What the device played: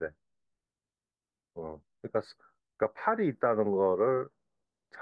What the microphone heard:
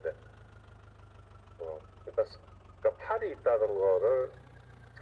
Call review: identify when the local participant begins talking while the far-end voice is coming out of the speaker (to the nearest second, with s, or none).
none